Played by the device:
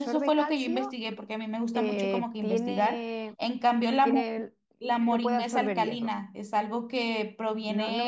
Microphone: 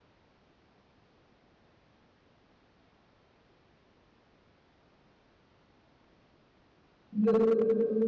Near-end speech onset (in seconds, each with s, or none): 7.1 s